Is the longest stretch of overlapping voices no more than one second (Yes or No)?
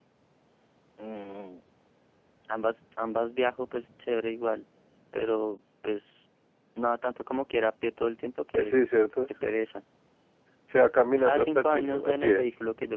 No